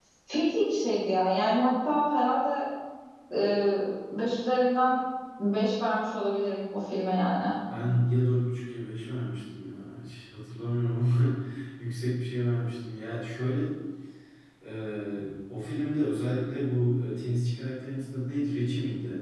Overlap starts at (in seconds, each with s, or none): none